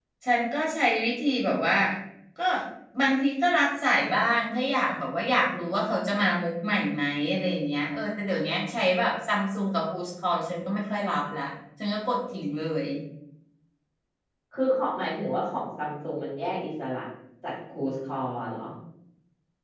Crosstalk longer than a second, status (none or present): none